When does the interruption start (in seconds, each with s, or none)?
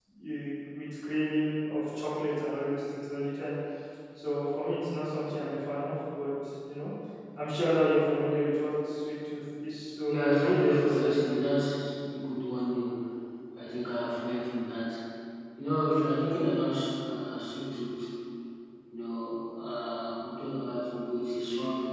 10.1 s